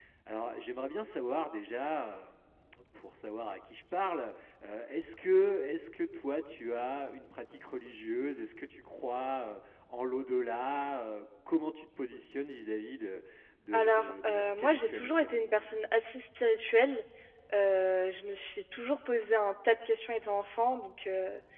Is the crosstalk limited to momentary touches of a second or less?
No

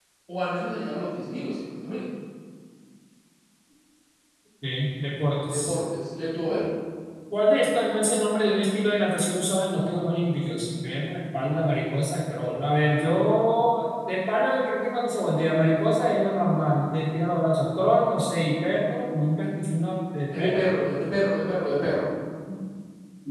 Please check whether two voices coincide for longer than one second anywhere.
No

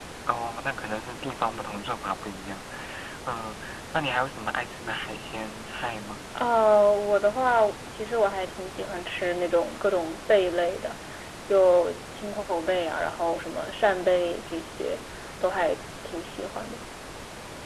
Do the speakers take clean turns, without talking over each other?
Yes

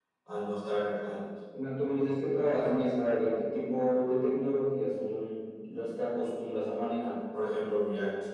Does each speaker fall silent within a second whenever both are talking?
Yes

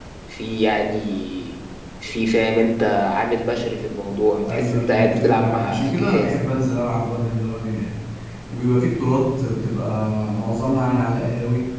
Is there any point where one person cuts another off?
Yes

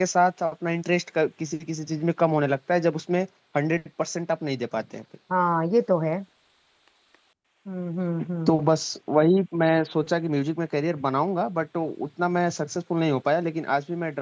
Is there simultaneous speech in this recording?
No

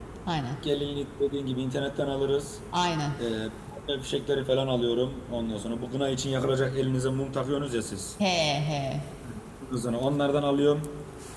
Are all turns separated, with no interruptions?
Yes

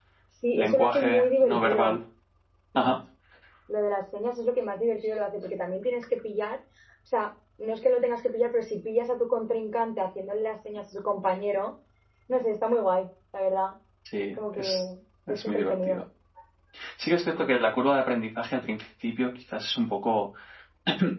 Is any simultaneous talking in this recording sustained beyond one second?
Yes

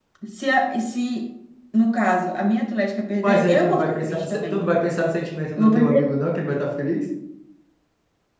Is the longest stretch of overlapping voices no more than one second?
No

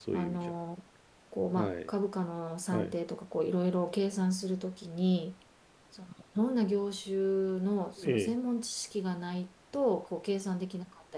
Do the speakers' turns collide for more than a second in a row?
No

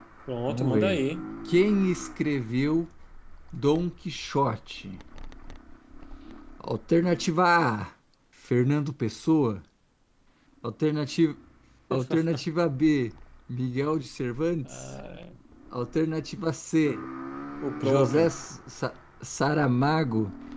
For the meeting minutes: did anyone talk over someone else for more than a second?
No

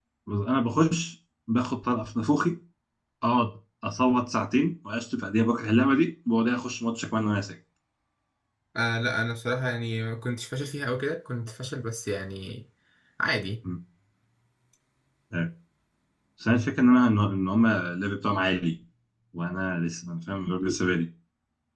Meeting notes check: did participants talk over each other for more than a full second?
No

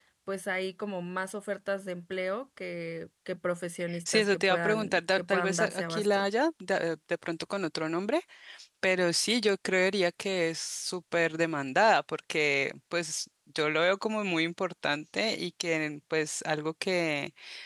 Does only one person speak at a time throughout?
No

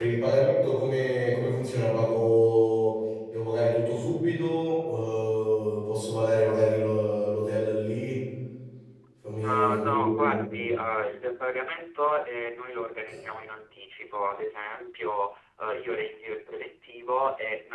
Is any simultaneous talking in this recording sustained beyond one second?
Yes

